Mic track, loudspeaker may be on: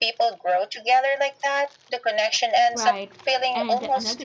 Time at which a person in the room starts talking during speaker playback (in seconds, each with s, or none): 2.7 s